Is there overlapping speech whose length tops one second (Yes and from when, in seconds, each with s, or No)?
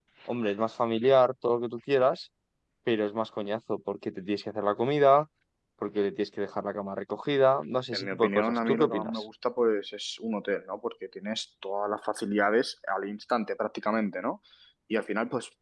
Yes, from 7.9 s